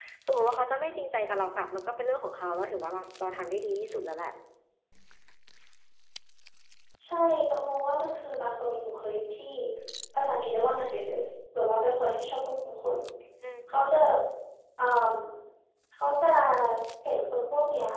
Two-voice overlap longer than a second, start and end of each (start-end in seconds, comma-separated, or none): none